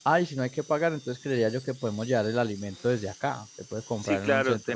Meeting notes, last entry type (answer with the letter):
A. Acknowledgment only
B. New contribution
B